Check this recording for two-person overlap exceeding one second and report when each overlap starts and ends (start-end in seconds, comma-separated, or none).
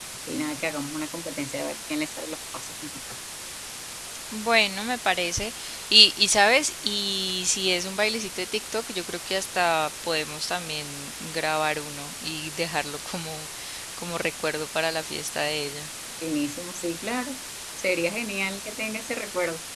none